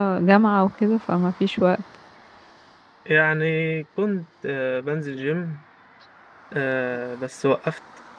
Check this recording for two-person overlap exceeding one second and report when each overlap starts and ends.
none

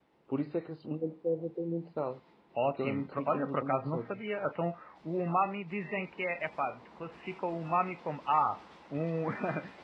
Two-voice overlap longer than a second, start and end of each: 2.6-4.2

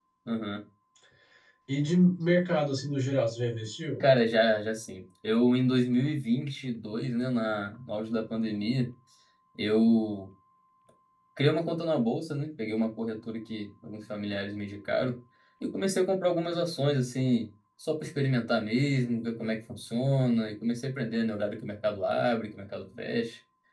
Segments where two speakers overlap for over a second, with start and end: none

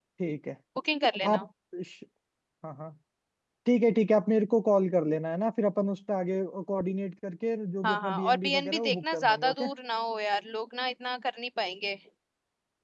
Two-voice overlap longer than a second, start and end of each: 7.8-9.6

